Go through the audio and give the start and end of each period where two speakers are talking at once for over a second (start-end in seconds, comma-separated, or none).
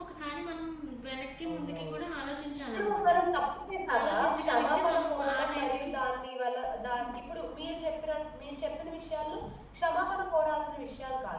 4.0-5.9